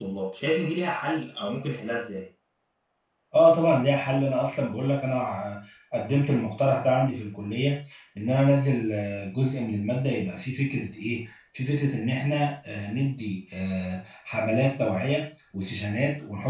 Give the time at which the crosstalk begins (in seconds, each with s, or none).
none